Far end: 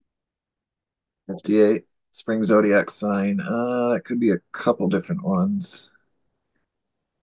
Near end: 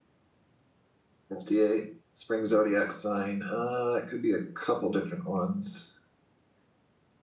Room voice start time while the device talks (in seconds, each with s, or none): none